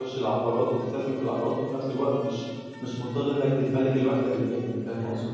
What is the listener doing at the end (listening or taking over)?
taking over